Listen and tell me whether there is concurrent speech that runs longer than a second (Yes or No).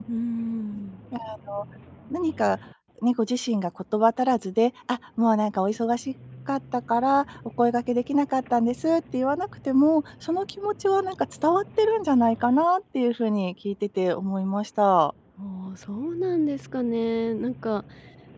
No